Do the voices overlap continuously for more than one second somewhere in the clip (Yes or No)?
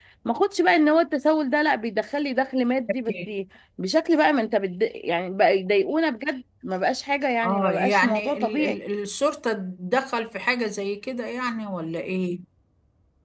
Yes